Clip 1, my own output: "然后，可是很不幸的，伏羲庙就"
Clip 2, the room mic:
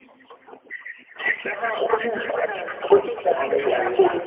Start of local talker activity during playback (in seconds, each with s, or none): 2.9 s